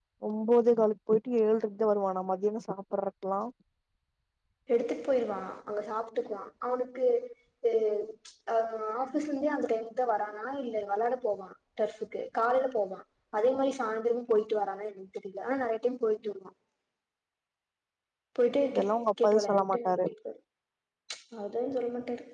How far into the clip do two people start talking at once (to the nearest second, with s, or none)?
19 s